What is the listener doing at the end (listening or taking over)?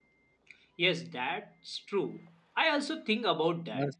listening